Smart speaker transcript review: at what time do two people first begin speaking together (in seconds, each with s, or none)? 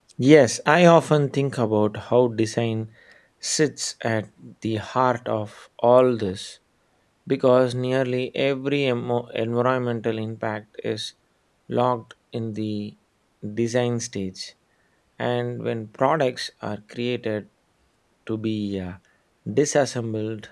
none